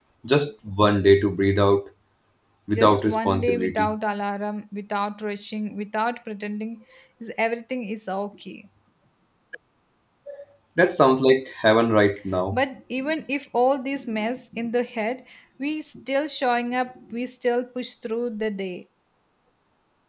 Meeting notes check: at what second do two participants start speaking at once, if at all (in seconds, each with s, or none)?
2.7 s